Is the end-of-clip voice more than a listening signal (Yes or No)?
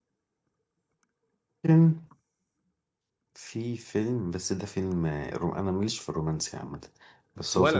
No